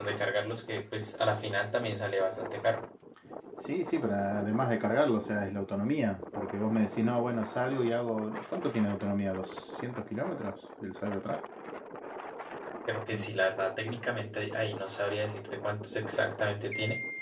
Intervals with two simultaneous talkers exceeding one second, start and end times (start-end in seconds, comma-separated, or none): none